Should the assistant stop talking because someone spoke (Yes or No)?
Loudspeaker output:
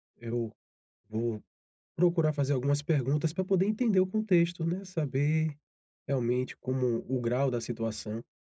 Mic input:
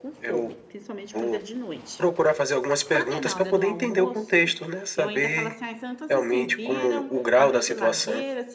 Yes